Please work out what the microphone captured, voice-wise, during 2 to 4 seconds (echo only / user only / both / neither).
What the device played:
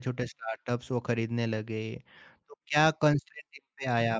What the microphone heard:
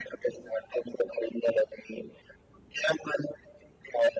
echo only